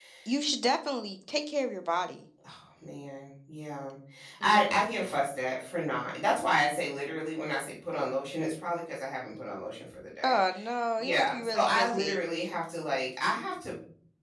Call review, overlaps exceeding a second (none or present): present